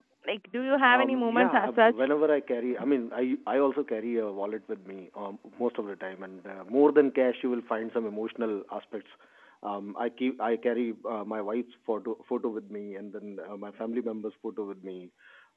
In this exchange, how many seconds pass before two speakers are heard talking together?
1 s

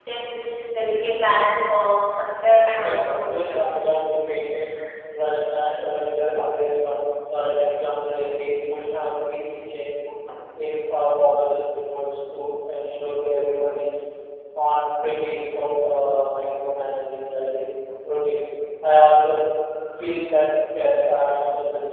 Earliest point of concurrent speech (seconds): 3 s

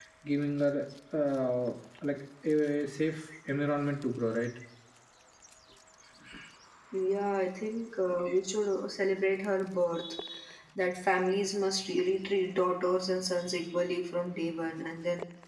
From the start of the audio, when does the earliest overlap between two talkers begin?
none

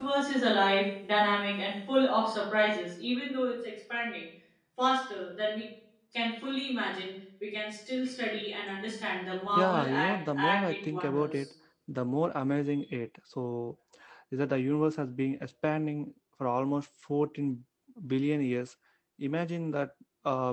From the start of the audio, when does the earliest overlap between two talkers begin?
10 s

